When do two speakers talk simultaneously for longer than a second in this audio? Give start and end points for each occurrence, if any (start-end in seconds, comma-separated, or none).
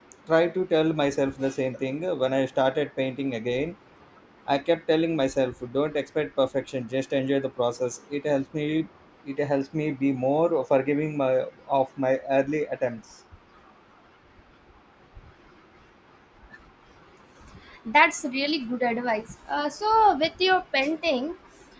none